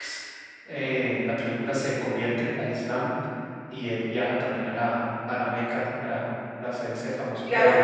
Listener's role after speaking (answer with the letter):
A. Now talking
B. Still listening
A